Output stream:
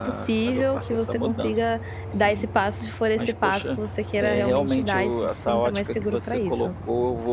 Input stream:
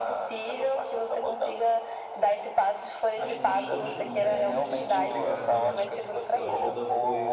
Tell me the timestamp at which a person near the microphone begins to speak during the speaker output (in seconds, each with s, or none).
3.1 s